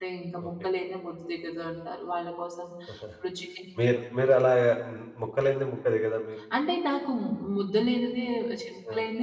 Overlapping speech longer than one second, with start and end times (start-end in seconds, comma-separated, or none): none